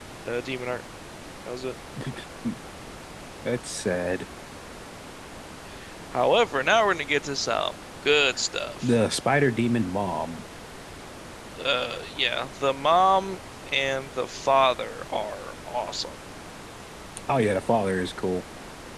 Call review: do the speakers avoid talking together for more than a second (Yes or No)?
Yes